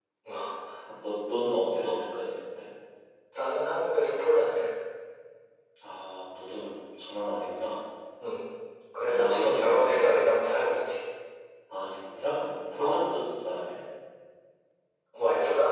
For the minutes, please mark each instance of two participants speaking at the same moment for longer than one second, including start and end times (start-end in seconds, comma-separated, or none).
9.1-10.3